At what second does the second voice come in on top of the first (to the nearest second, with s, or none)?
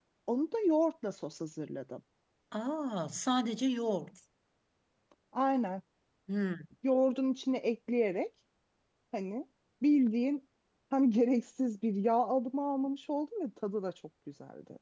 none